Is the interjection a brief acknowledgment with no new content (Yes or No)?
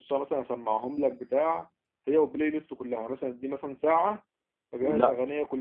Yes